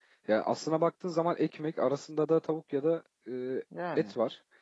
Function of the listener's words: listening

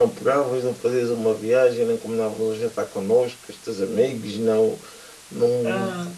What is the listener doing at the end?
taking over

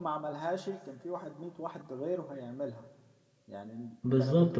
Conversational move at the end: taking over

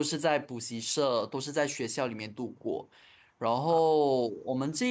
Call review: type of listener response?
listening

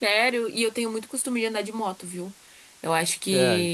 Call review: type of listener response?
listening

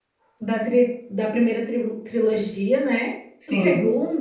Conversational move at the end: listening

